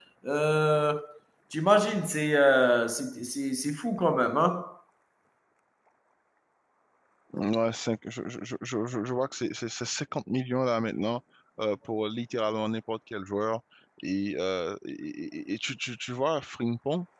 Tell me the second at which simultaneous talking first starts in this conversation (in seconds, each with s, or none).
none